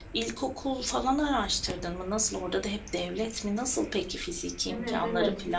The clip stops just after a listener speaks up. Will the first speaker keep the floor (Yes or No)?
No